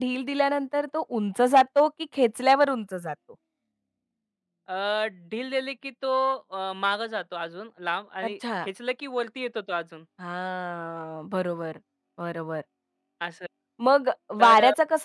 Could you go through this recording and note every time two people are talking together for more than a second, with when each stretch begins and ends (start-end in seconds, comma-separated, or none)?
none